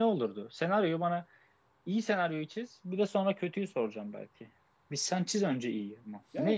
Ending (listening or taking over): taking over